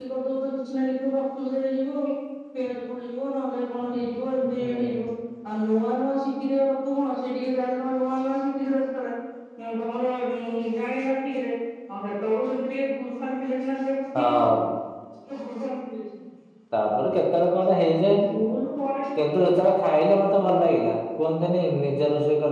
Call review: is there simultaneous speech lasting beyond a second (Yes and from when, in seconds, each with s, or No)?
No